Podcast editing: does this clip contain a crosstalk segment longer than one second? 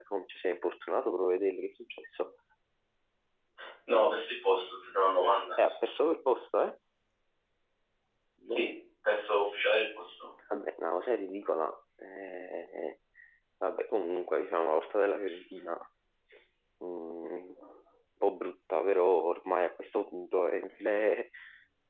No

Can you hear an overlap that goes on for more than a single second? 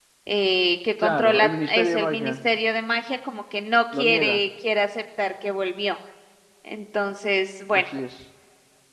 Yes, from 1.0 s

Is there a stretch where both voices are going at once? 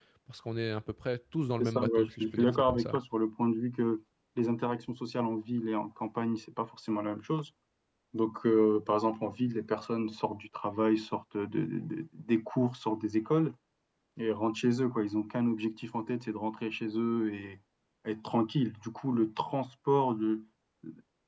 Yes, from 1.6 s

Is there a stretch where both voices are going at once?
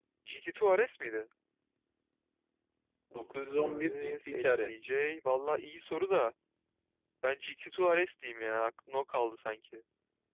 Yes, from 3.3 s

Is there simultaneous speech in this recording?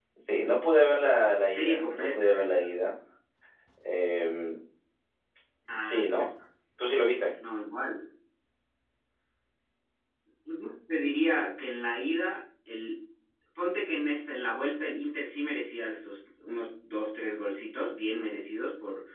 Yes, from 1.1 s

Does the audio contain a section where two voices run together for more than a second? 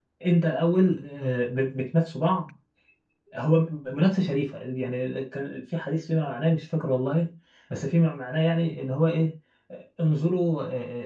No

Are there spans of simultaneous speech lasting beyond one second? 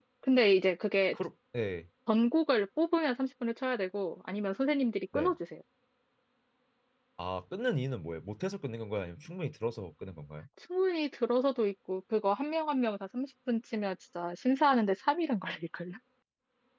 No

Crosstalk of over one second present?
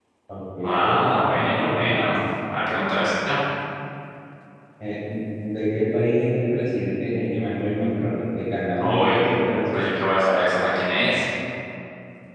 Yes, from 0.6 s

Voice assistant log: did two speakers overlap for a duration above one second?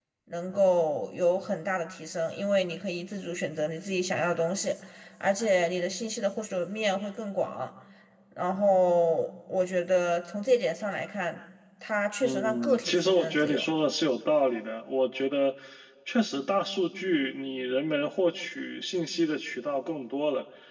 Yes, from 12.2 s

